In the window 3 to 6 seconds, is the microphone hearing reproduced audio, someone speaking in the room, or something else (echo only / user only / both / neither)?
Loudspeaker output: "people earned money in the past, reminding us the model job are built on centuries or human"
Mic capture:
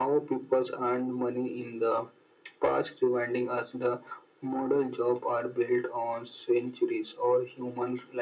echo only